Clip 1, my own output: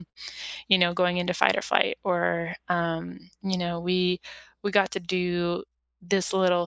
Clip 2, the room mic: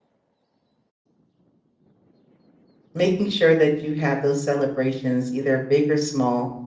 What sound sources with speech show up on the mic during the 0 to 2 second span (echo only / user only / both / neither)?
neither